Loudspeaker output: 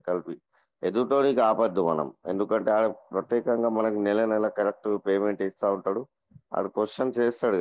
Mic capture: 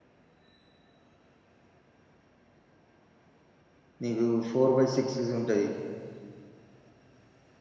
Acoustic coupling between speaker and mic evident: No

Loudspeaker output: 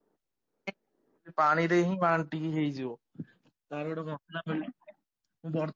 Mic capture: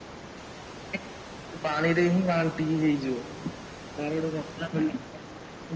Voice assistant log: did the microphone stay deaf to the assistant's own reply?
No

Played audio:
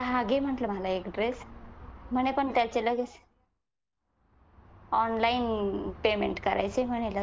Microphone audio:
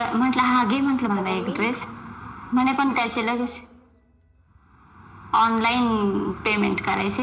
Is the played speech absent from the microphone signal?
No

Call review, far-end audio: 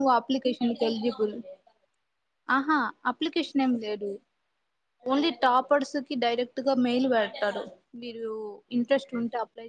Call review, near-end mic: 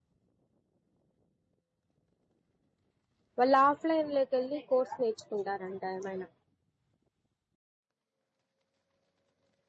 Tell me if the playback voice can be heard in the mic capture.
No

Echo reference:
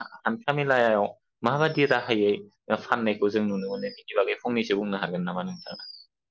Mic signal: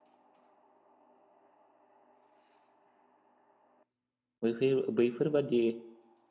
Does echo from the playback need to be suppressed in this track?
No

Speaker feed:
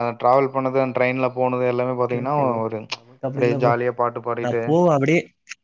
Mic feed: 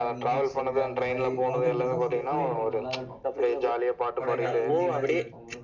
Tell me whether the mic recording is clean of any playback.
No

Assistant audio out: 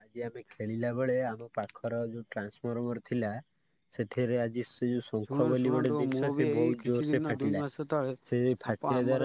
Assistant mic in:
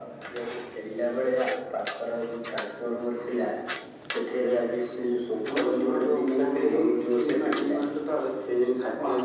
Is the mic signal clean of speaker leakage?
No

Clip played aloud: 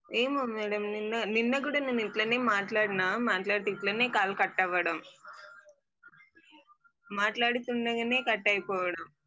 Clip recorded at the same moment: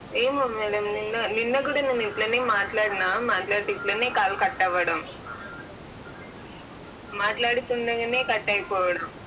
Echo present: Yes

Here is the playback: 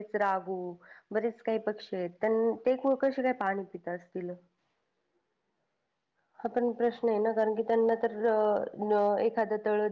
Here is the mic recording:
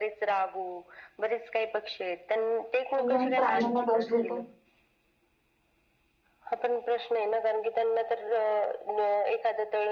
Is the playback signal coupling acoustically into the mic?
Yes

